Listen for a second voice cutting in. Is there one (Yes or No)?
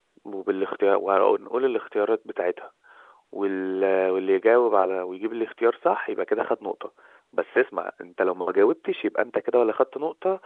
No